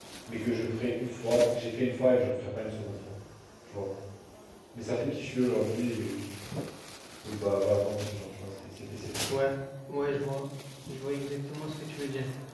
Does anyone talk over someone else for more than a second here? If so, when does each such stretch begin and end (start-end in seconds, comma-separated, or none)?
none